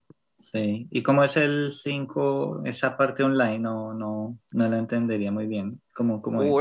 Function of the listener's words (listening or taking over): taking over